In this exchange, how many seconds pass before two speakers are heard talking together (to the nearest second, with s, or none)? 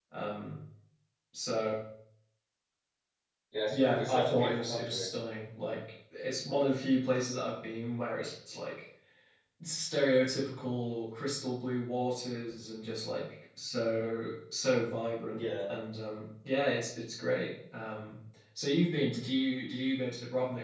4 s